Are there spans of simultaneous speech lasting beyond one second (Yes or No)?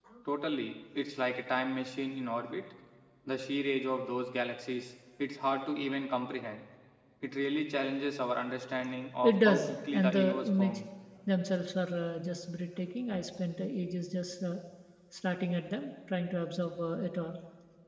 Yes